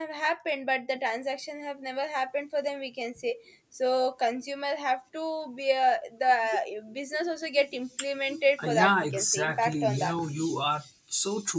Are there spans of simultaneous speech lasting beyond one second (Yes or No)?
Yes